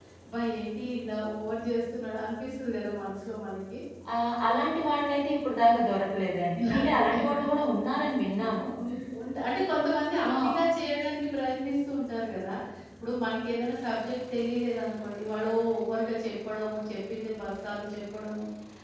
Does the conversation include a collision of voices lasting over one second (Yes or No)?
Yes